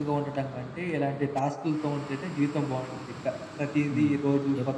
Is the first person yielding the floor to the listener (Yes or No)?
Yes